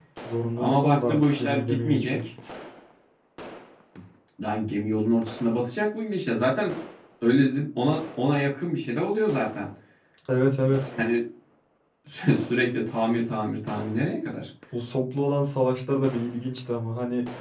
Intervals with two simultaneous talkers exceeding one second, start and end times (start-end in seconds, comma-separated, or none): 0.6-2.2